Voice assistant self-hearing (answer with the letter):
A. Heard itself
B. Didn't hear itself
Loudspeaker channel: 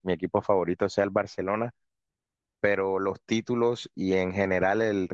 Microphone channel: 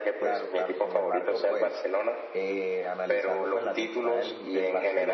A